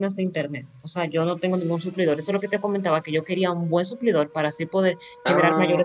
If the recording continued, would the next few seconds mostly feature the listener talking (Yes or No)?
No